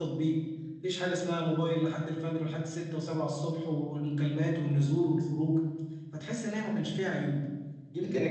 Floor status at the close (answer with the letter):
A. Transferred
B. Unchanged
A